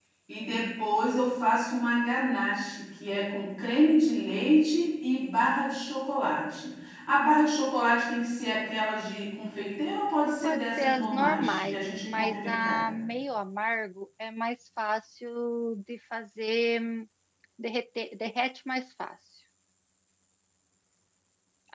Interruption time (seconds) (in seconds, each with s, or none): 10.4 s